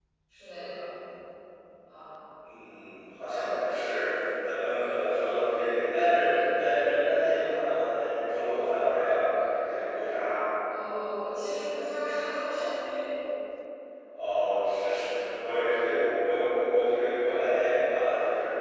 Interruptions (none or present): none